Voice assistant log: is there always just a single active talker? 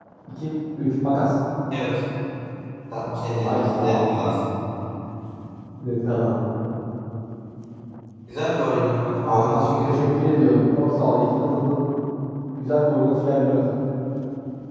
No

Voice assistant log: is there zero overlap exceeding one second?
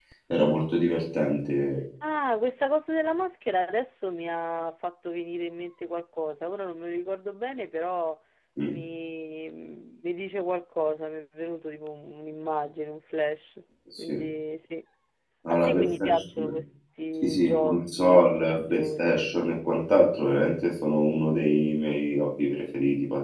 No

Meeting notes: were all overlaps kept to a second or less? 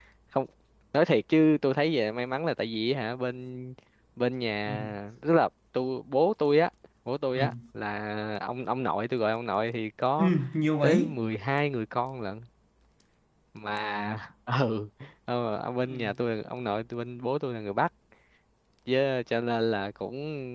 Yes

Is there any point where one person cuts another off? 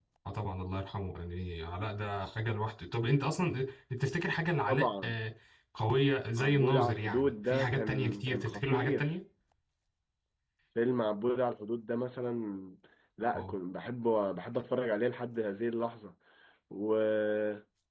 Yes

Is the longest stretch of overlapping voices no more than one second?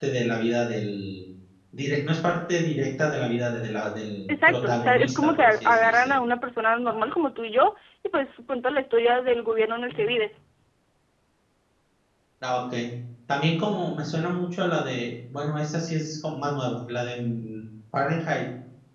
No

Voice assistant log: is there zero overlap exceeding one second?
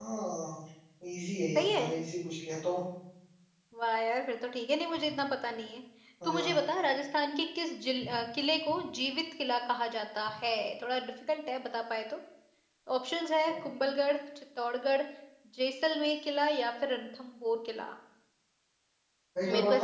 Yes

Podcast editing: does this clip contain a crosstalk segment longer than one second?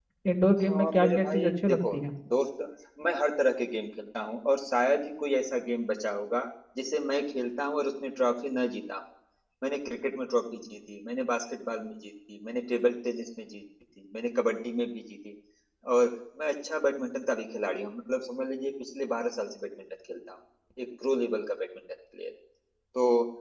Yes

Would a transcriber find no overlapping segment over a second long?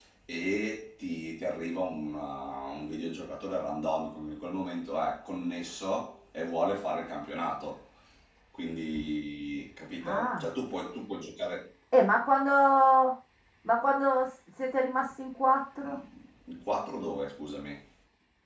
Yes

